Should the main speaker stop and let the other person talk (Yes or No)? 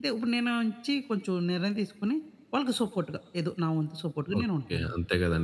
Yes